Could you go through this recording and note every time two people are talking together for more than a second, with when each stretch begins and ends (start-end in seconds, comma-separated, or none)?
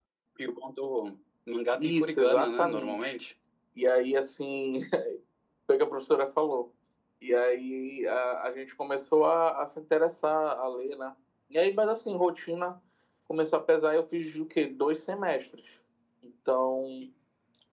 1.8-3.1